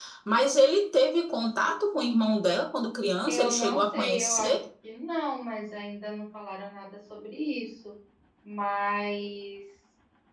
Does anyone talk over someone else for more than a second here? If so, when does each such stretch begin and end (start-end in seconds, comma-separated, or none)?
3.3-4.5